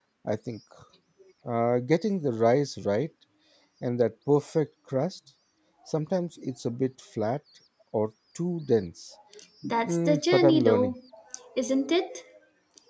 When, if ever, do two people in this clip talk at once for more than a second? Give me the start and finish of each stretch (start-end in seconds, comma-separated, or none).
9.6-10.9